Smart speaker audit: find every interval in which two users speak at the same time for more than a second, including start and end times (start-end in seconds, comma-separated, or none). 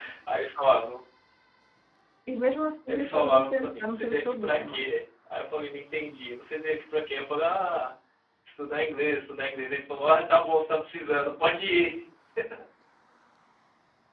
2.9-4.8